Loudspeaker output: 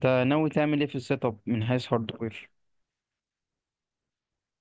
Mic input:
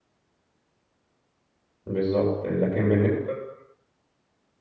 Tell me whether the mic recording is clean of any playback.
Yes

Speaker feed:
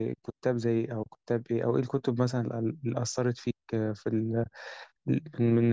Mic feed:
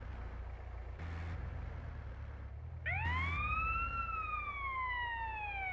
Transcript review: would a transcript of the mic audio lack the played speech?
Yes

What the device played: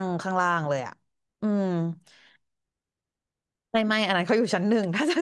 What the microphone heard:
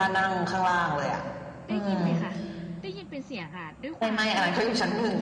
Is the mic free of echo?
No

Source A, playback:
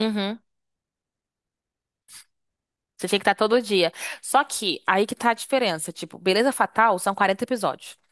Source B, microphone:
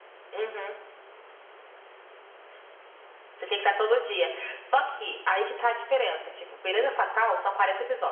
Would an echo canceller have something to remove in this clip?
Yes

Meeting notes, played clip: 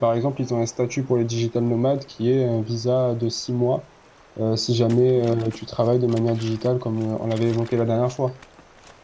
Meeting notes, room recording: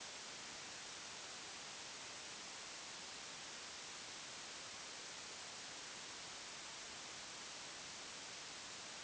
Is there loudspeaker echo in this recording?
No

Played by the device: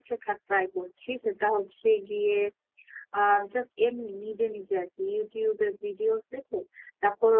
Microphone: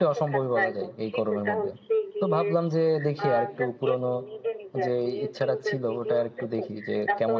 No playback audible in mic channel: No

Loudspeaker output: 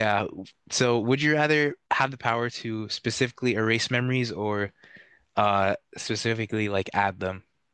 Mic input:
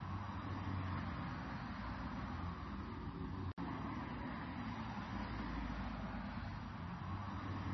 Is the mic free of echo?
Yes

